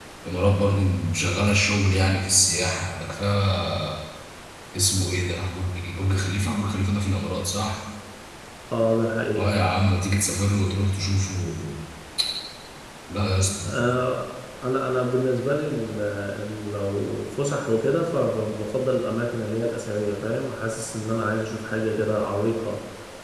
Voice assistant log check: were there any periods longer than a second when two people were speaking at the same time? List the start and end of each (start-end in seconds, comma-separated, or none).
none